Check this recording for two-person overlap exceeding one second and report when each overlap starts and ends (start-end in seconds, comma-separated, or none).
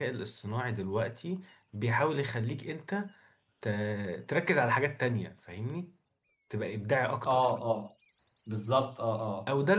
none